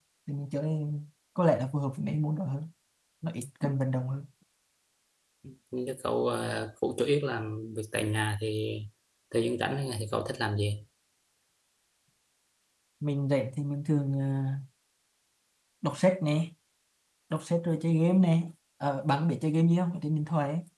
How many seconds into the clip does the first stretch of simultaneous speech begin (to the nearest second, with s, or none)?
none